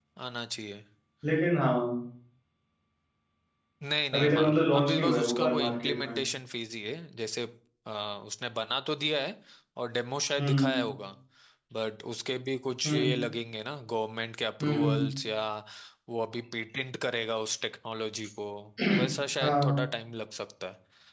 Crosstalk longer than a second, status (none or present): present